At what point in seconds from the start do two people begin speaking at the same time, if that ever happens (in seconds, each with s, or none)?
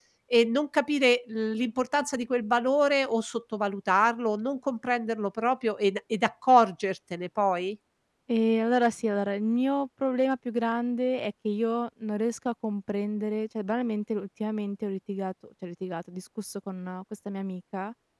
none